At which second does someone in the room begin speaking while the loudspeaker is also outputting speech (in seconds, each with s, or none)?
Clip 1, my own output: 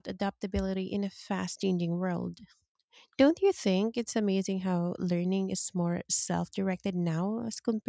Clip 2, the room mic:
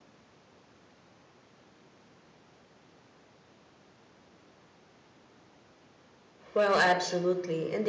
6.5 s